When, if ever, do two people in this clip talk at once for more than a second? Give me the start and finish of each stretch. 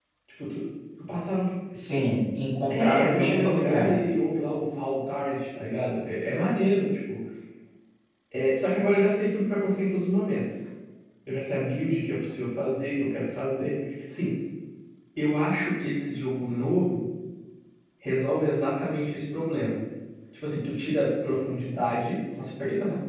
2.7-4.0

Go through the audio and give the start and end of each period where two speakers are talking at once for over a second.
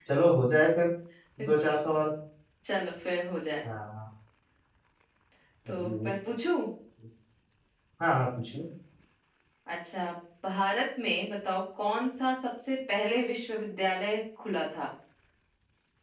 none

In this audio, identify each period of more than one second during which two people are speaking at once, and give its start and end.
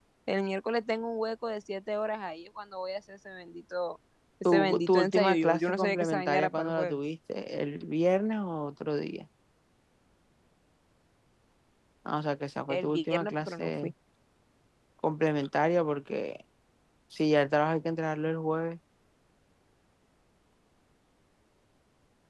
4.5-7.0, 12.7-13.9

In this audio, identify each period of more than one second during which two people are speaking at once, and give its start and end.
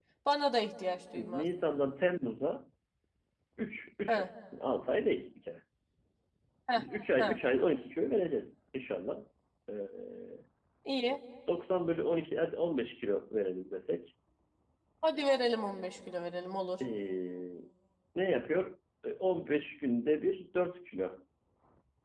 none

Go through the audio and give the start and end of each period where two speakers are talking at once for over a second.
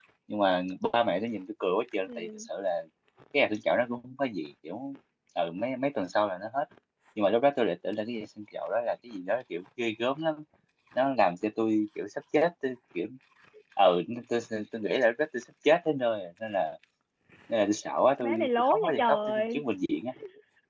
18.2-19.6

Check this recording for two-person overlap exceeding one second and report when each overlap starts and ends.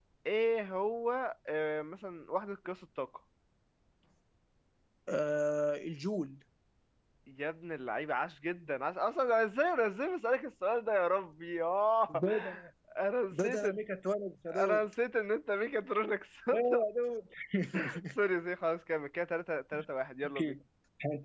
none

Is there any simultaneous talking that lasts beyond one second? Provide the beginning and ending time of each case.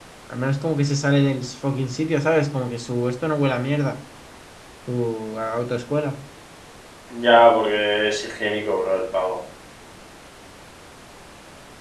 none

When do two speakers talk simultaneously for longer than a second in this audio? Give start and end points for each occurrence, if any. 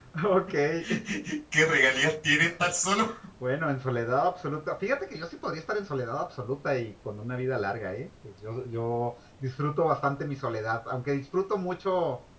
none

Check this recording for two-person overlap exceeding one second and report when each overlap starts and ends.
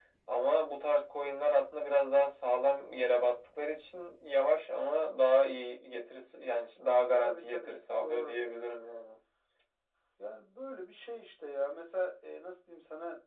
7.2-8.5

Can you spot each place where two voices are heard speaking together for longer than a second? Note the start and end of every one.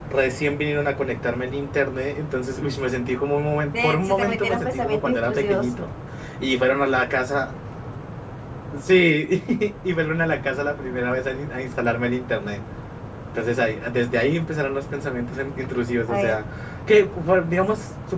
3.7-5.6

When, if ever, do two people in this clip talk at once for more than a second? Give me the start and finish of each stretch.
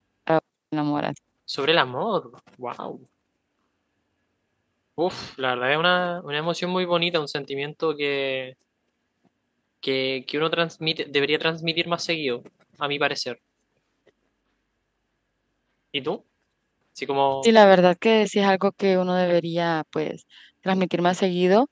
none

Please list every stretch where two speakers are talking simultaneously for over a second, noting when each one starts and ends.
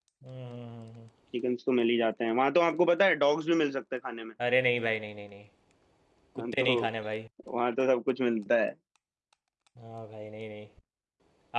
none

